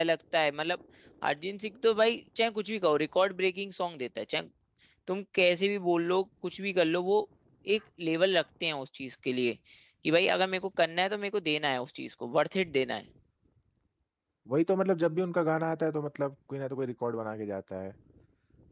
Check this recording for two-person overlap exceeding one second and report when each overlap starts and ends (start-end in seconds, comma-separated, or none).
none